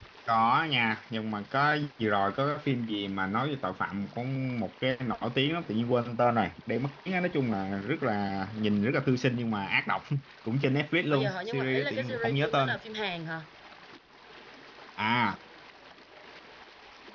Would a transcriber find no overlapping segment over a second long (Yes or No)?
No